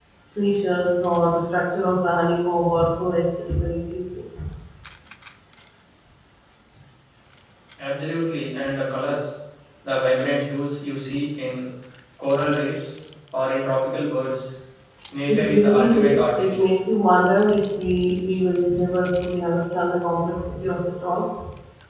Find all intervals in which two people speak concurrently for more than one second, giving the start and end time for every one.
15.3-16.6

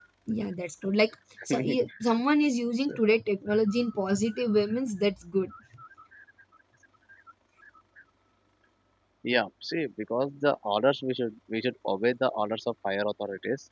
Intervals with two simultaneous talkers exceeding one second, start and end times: none

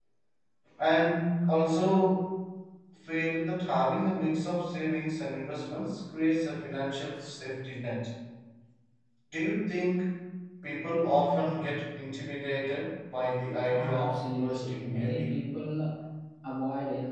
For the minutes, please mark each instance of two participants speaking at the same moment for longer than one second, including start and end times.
13.7-15.4

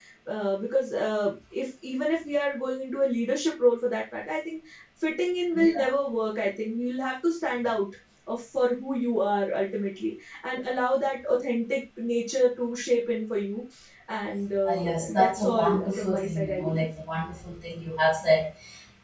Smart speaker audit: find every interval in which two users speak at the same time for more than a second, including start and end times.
14.7-16.9

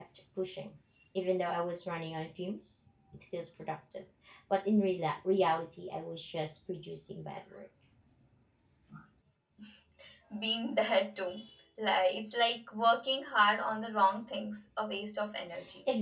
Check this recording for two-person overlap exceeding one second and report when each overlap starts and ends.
none

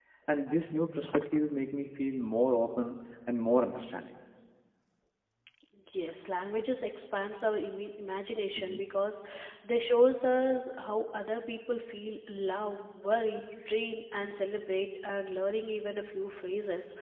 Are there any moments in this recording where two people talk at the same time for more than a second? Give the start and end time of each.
none

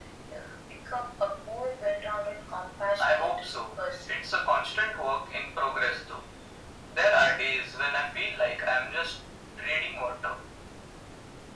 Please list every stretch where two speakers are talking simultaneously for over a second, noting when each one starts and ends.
none

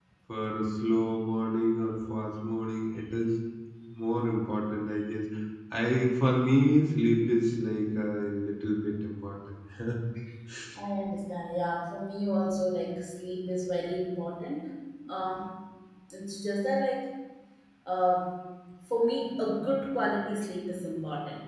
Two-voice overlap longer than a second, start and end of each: none

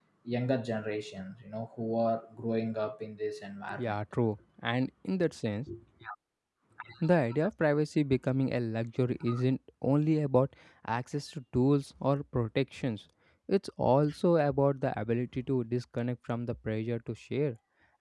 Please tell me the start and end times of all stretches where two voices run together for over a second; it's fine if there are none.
none

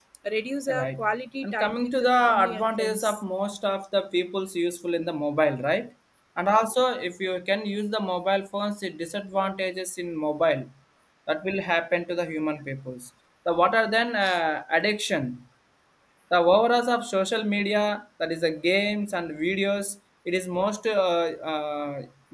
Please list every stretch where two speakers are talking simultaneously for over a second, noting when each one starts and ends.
1.4-3.2

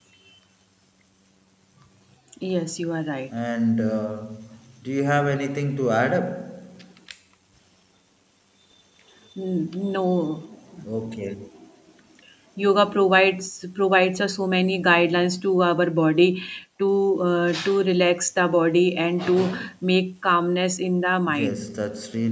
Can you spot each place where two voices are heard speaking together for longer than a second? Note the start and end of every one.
none

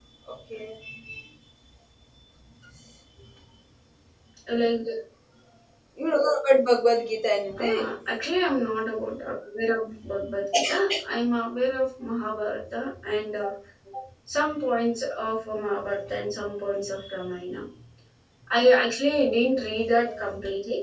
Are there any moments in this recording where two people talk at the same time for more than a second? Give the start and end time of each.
none

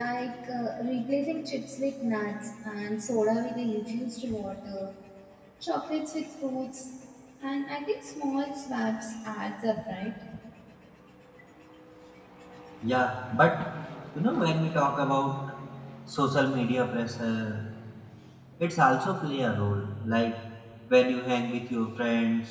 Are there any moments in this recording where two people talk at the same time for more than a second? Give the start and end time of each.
none

